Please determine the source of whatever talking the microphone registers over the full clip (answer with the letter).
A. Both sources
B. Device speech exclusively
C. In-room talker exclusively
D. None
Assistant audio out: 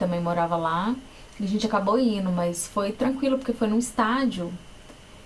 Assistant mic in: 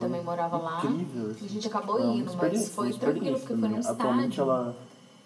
A